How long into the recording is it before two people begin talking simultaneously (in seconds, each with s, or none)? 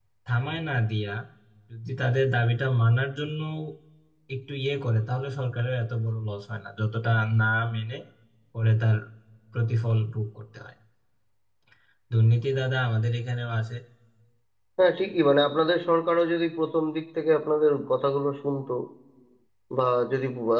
none